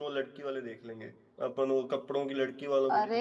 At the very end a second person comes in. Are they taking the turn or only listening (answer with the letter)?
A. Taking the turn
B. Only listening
A